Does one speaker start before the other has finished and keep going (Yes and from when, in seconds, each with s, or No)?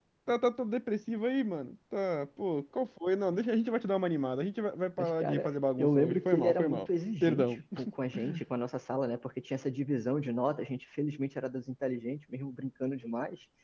Yes, from 5.0 s